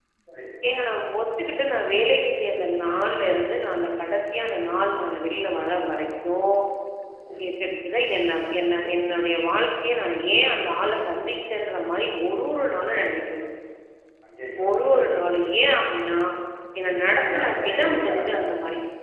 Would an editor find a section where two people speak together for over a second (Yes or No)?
Yes